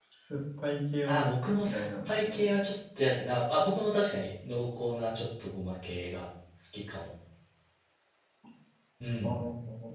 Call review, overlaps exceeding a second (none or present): present